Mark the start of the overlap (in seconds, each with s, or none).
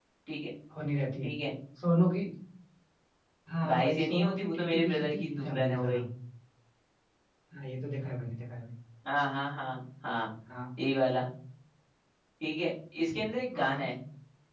3.6 s